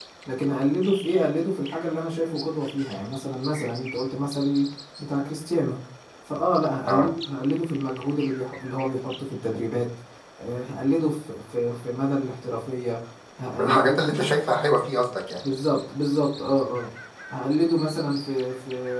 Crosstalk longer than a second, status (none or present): none